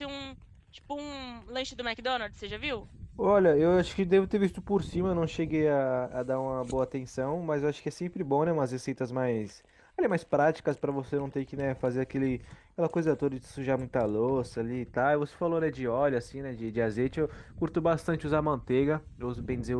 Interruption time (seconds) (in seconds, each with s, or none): none